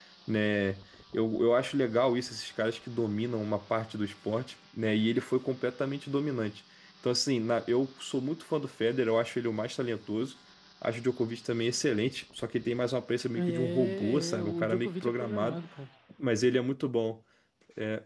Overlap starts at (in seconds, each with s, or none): 13.4 s